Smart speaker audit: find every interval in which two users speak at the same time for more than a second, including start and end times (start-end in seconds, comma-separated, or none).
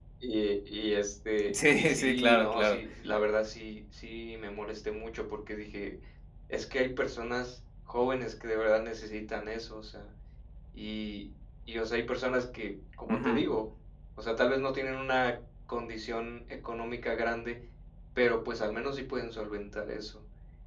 1.5-2.8